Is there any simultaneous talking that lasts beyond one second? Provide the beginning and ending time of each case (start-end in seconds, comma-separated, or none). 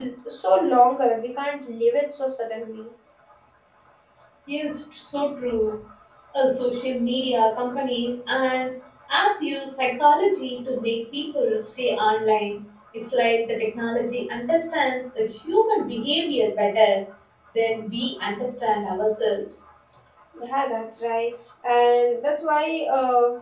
none